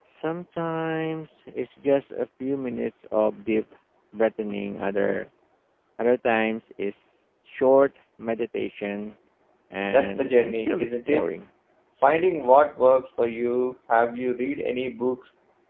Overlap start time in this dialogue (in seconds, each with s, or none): 9.9 s